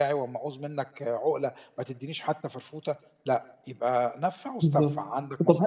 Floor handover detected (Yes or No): Yes